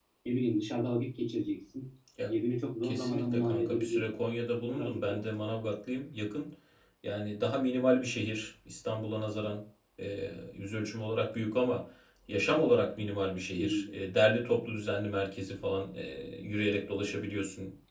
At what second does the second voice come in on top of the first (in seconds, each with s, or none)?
2.8 s